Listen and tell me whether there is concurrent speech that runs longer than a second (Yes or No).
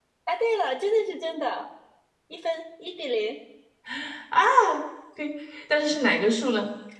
No